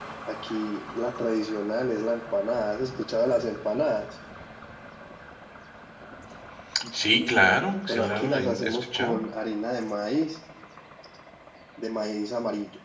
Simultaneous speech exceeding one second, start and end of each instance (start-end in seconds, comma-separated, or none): 7.9-9.2